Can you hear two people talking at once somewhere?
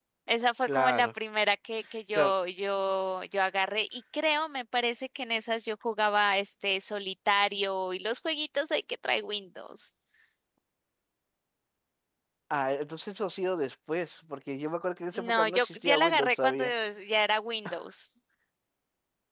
Yes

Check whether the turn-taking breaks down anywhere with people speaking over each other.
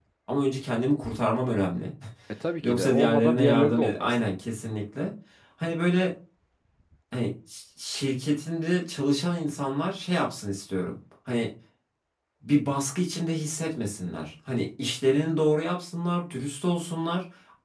Yes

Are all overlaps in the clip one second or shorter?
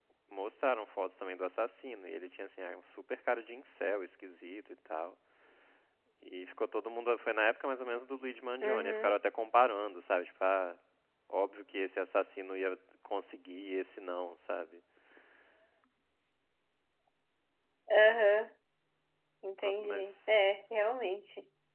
Yes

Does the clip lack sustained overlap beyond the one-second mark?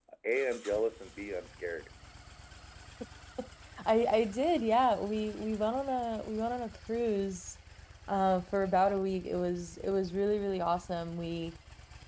Yes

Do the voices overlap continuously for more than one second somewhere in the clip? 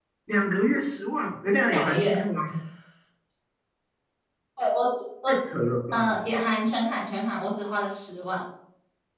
No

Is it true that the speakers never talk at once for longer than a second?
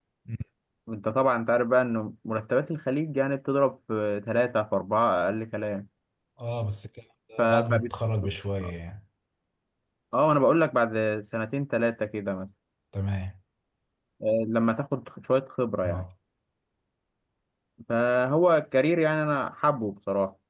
Yes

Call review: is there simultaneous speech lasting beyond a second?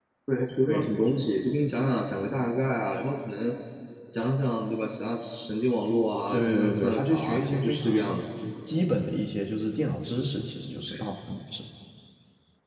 Yes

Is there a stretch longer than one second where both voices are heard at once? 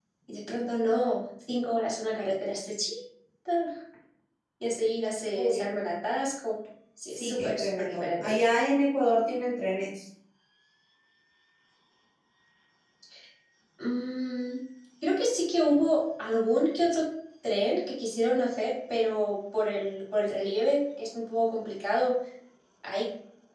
Yes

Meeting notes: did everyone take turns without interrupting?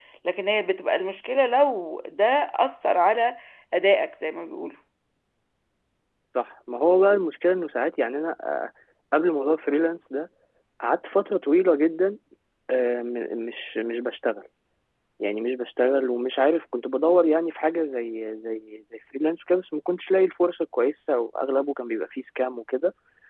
Yes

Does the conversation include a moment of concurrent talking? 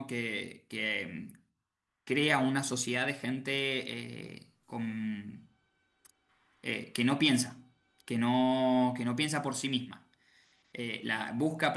No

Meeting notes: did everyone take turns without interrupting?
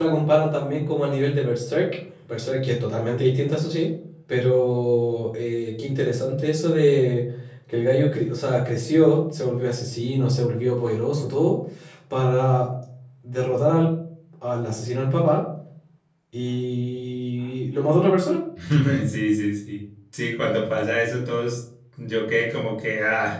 Yes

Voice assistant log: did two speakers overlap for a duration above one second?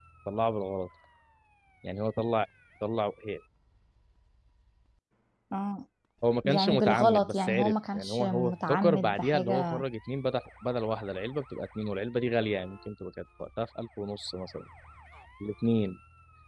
Yes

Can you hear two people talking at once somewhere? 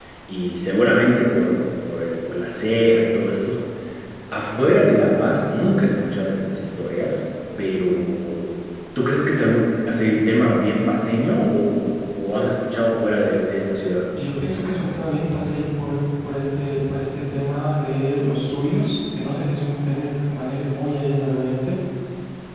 No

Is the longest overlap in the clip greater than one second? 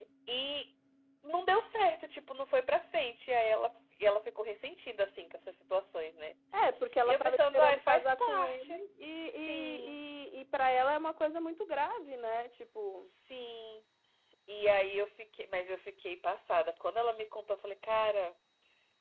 Yes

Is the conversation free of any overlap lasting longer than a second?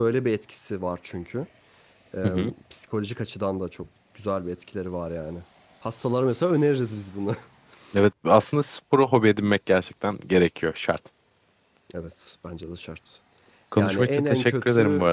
No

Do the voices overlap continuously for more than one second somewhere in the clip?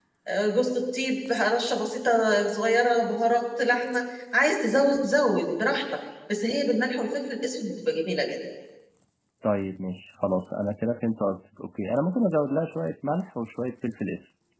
No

